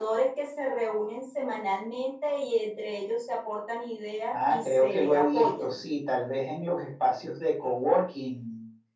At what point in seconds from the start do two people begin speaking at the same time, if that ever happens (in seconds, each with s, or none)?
4.3 s